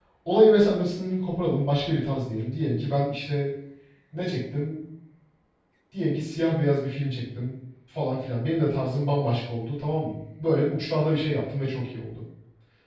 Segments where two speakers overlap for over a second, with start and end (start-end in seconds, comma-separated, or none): none